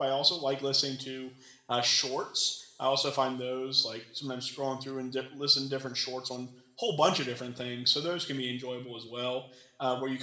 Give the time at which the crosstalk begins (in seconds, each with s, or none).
none